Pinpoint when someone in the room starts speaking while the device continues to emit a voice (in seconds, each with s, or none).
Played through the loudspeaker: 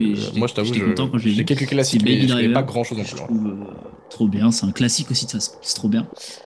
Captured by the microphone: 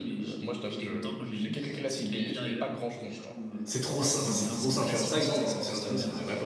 3.6 s